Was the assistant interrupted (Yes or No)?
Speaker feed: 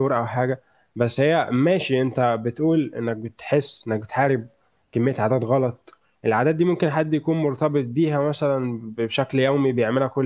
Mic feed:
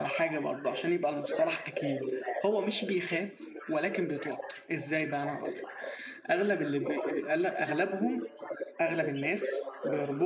Yes